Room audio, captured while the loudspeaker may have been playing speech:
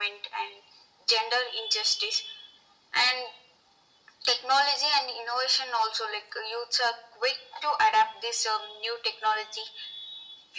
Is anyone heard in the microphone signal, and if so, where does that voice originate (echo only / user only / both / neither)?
echo only